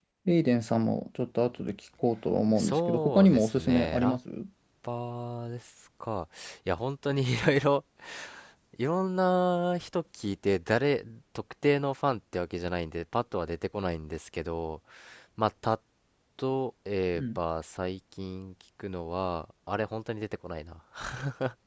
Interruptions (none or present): present